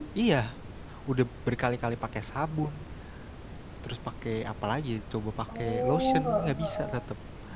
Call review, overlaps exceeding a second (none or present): present